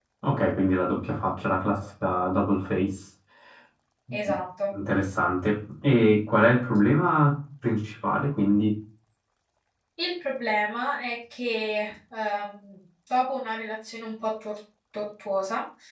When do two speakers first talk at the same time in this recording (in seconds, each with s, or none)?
none